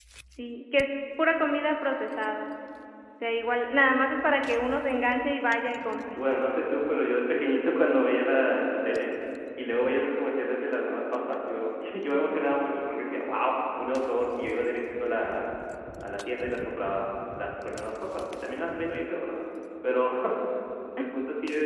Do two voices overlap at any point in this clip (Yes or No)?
No